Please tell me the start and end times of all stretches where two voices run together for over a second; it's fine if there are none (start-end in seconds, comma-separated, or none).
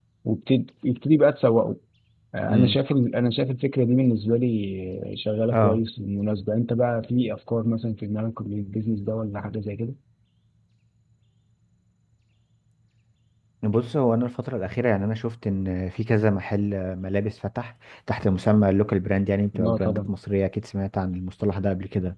none